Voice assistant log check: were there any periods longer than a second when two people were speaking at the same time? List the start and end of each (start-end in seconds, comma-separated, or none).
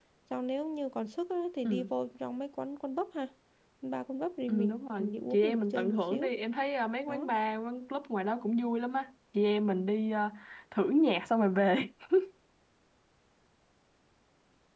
4.5-6.3